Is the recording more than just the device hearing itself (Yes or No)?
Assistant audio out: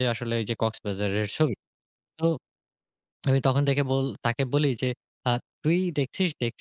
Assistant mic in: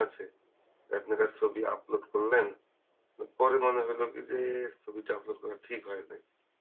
Yes